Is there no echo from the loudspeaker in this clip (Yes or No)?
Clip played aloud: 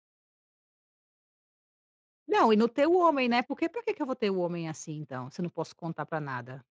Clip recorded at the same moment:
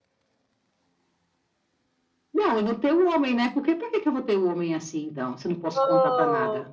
No